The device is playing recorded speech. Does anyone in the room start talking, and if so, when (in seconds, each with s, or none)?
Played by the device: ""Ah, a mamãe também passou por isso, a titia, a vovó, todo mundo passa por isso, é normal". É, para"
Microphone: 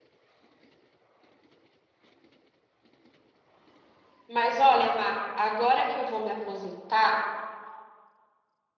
4.3 s